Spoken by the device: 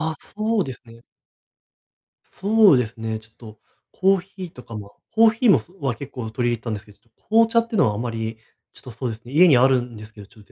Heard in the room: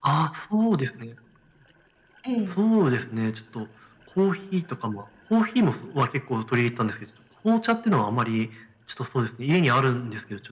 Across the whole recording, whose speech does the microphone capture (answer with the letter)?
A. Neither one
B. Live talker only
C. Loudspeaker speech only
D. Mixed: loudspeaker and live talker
D